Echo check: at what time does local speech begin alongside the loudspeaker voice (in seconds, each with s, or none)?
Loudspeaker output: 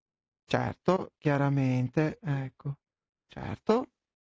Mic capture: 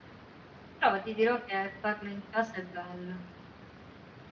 0.8 s